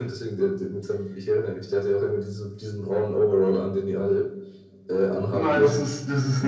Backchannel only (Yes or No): No